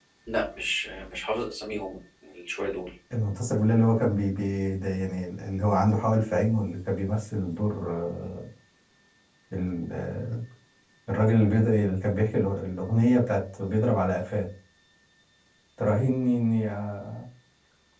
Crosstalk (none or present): none